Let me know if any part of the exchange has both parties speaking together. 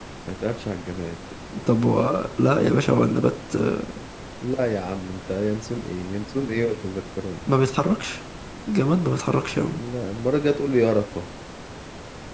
No

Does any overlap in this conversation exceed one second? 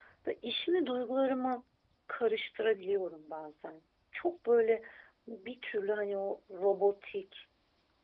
No

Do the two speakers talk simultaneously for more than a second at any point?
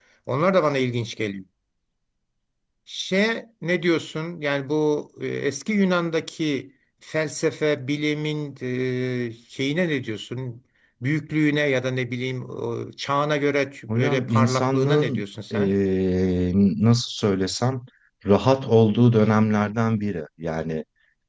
Yes, from 13.9 s

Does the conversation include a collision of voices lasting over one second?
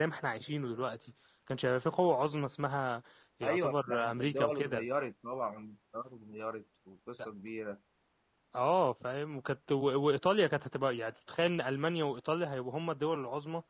Yes, from 3.4 s

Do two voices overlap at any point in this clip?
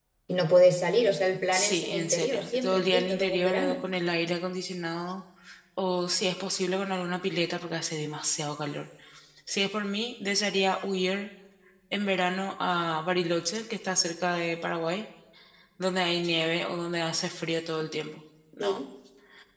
Yes, from 1.5 s

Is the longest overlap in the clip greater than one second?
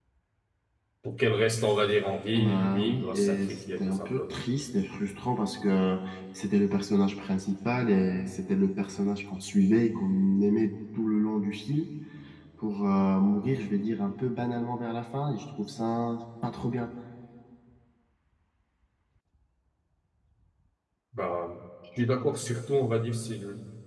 Yes, from 2.3 s

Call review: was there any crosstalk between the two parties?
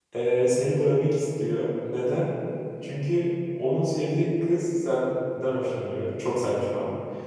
No

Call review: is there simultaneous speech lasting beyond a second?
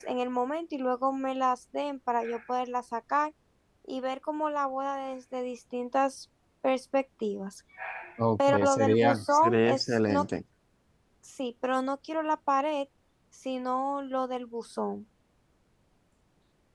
Yes, from 8.5 s

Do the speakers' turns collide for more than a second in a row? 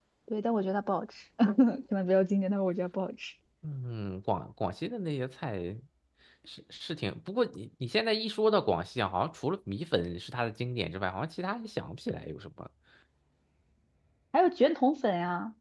No

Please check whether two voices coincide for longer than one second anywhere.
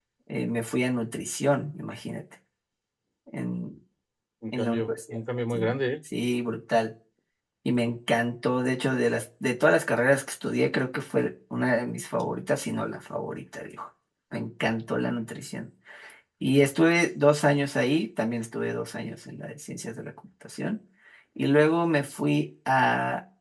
Yes, from 4.5 s

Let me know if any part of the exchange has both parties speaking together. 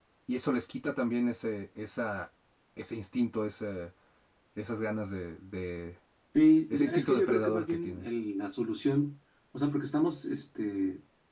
Yes, from 6.7 s

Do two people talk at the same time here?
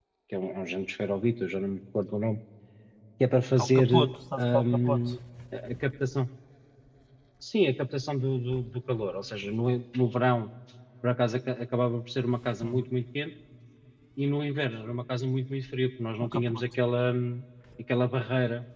Yes, from 3.6 s

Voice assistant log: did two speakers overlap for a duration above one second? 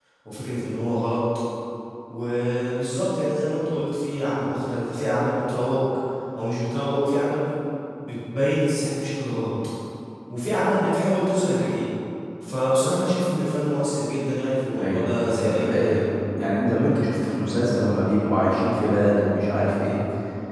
Yes, from 14.7 s

